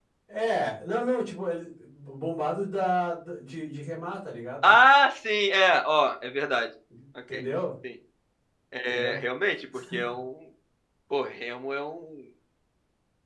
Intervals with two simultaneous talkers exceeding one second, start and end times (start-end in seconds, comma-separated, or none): none